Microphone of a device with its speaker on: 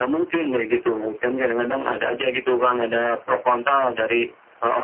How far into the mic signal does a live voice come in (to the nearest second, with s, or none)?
none